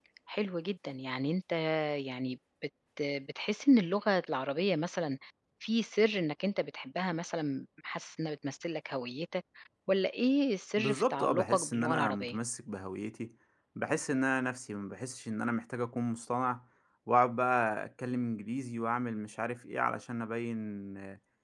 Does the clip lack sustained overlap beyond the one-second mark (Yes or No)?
No